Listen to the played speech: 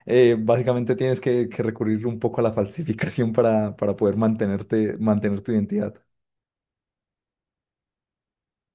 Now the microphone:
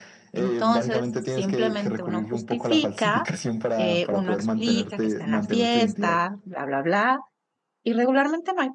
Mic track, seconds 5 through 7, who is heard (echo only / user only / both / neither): both